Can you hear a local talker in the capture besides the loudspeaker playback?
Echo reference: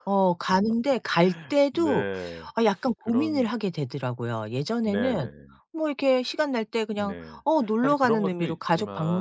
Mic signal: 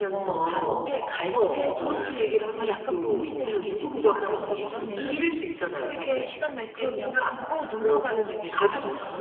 Yes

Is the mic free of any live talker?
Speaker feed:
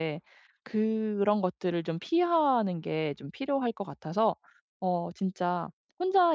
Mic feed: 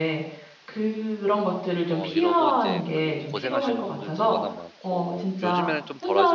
No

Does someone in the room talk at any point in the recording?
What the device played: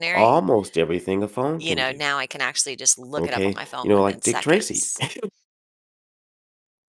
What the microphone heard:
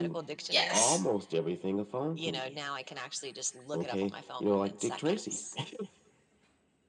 Yes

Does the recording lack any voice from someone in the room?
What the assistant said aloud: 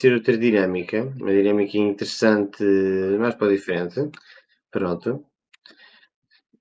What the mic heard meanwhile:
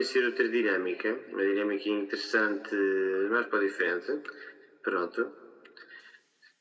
Yes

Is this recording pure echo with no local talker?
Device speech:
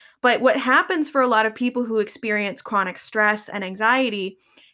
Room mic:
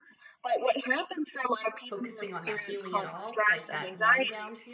No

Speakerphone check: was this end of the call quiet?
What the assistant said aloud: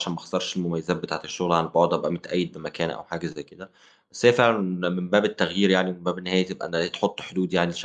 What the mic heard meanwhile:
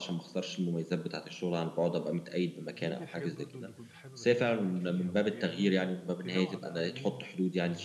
No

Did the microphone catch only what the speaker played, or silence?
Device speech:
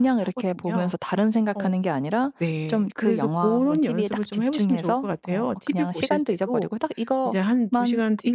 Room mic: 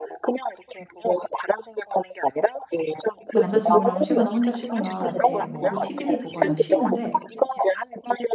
No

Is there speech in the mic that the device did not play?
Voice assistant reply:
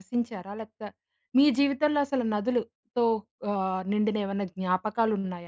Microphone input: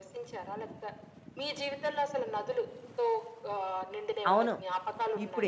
Yes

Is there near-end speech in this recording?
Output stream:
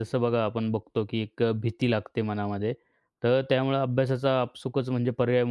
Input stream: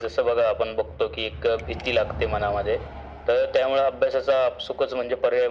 No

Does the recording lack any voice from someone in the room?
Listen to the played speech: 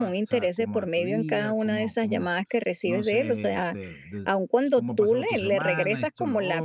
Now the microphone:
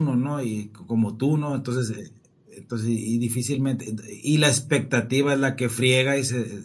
No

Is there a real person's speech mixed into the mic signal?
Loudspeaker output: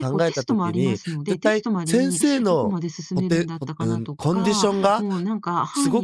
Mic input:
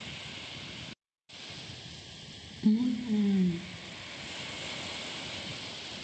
Yes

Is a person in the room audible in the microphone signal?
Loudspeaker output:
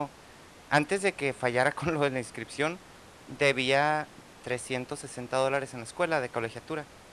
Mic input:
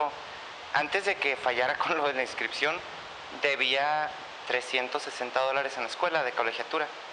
No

